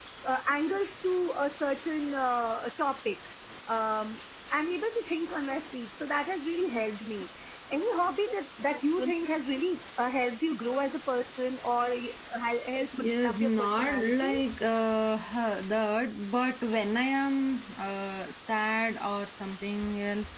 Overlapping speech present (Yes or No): Yes